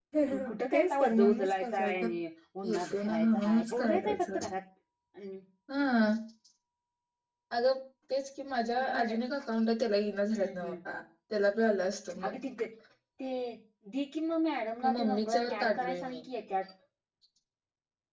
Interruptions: present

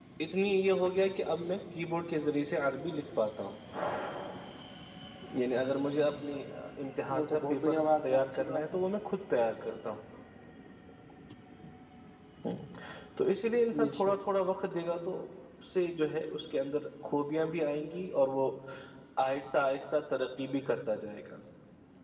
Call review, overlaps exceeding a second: present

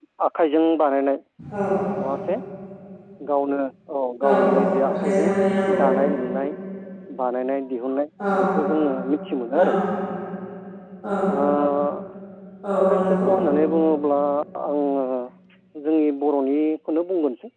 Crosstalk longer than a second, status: none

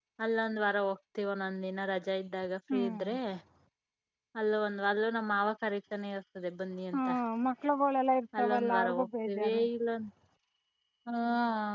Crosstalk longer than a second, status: present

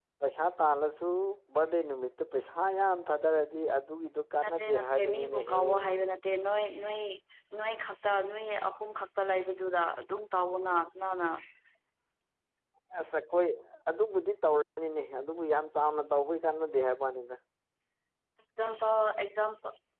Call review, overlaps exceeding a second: present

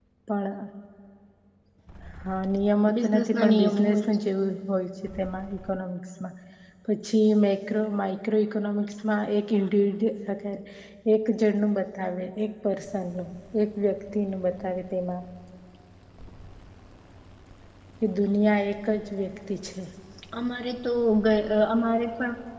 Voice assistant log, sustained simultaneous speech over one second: present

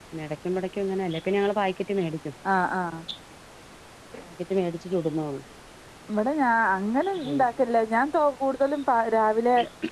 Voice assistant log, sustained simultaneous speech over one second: none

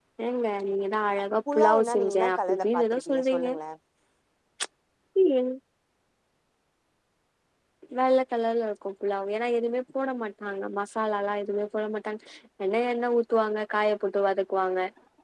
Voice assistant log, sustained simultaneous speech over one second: present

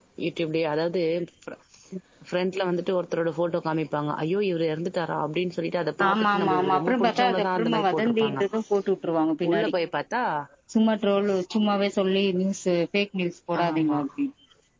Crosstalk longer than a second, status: present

